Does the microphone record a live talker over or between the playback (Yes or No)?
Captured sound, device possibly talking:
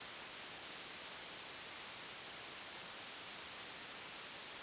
No